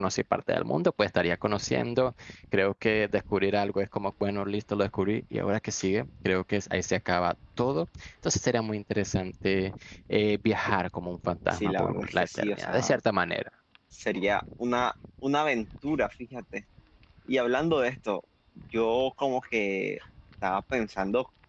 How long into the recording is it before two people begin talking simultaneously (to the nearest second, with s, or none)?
12 s